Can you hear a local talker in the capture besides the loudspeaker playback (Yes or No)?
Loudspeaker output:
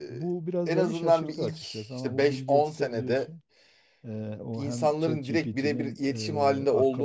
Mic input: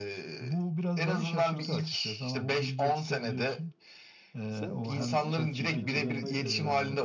Yes